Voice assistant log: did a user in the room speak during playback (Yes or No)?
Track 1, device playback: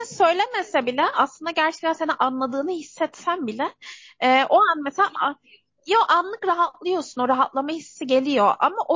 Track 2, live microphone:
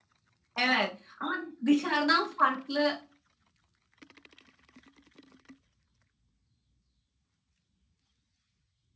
Yes